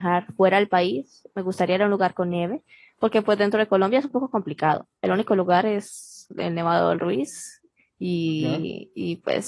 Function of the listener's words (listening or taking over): listening